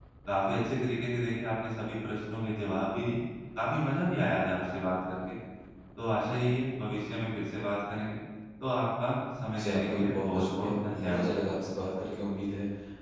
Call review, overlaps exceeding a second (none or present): present